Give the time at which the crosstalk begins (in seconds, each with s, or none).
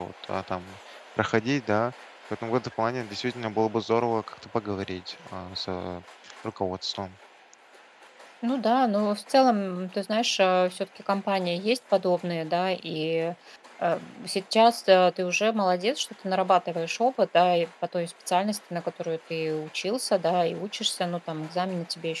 none